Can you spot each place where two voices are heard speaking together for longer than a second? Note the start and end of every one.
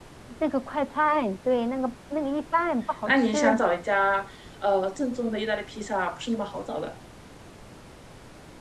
none

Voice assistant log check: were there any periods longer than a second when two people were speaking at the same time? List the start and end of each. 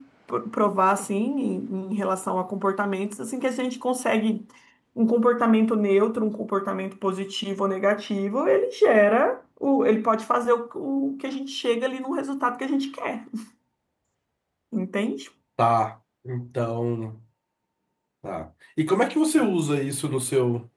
none

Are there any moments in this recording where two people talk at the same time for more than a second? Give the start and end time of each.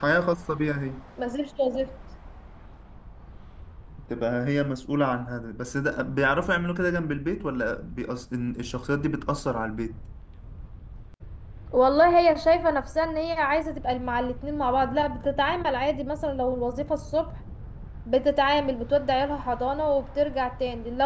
none

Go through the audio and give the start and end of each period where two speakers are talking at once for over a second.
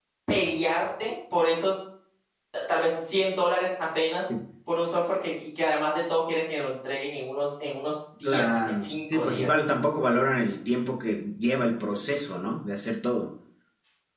8.2-9.5

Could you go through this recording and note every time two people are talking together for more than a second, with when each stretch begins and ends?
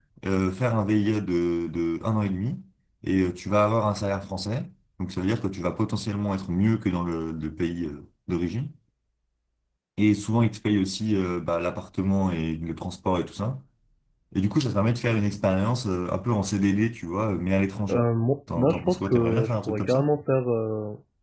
18.6-20.1

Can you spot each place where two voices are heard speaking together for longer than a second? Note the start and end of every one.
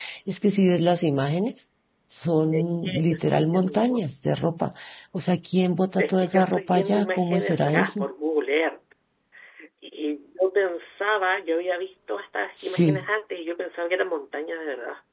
2.5-4.0, 6.0-8.1

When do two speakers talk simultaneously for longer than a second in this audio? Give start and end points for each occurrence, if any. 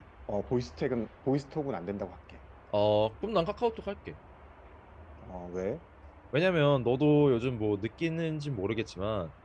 none

